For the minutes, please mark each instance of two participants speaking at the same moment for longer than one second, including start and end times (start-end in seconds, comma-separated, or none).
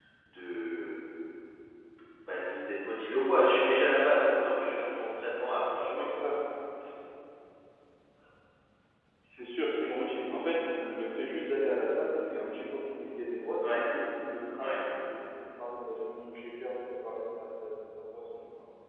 none